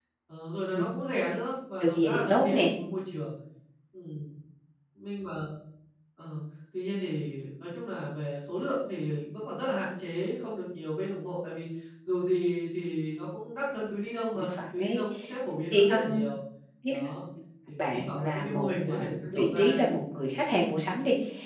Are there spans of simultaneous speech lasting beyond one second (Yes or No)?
Yes